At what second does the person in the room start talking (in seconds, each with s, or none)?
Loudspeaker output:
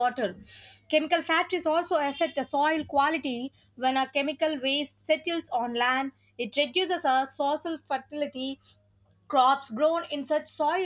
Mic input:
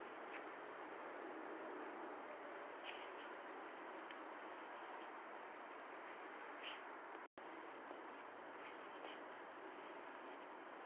none